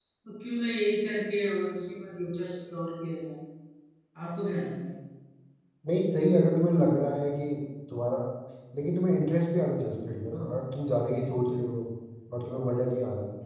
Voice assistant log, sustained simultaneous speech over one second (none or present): none